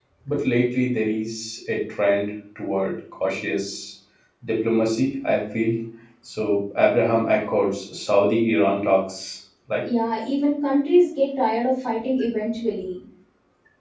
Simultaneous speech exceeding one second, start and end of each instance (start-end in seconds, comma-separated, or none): none